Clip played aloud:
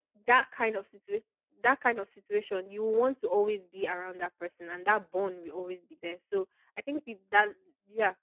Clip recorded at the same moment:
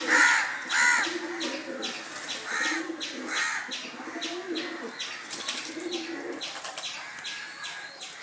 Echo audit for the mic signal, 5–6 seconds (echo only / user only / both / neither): neither